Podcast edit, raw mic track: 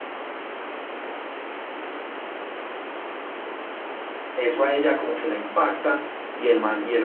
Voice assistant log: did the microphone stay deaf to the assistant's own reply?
Yes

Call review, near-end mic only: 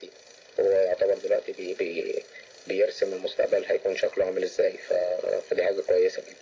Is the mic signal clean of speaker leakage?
No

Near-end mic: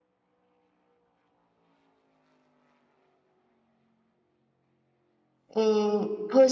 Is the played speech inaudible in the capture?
Yes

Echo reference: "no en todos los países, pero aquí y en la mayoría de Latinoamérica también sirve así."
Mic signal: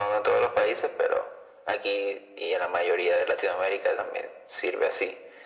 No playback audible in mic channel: No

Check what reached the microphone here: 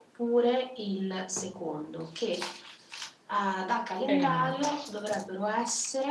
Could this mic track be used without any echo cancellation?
No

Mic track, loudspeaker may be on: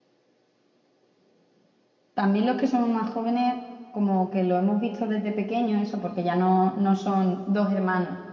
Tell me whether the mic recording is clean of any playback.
Yes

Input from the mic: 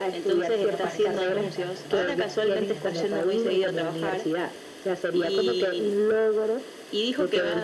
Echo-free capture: No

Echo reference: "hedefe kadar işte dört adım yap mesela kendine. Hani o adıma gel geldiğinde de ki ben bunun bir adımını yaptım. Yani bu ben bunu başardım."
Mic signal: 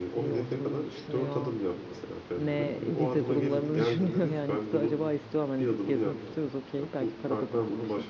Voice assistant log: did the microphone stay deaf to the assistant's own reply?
No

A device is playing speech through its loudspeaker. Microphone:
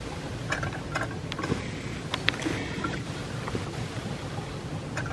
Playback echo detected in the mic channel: No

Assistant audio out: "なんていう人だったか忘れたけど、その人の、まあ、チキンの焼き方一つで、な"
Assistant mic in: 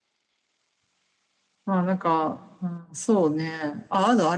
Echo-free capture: Yes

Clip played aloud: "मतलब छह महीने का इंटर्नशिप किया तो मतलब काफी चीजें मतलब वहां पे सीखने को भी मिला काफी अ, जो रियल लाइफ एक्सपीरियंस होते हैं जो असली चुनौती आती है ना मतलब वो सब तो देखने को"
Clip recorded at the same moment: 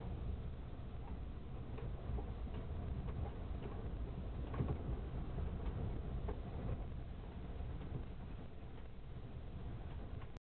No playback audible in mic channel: Yes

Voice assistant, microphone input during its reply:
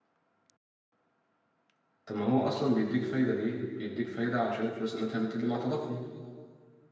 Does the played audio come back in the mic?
No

